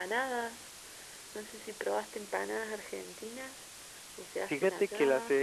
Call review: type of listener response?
taking over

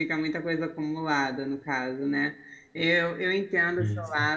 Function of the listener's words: listening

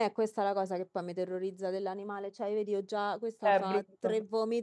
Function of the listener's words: listening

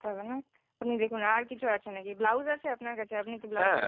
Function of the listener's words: taking over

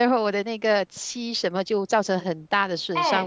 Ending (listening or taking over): taking over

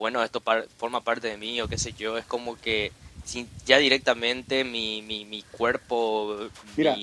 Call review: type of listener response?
taking over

